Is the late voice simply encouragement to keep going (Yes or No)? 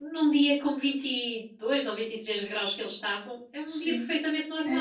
No